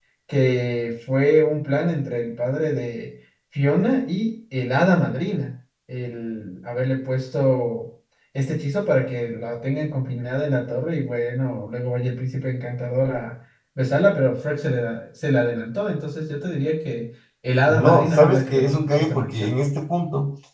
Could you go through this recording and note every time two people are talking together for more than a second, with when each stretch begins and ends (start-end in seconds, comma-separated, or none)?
17.7-19.5